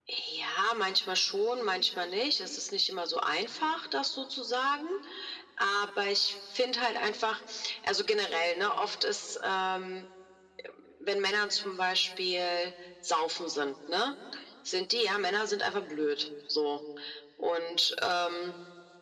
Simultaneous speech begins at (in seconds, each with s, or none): none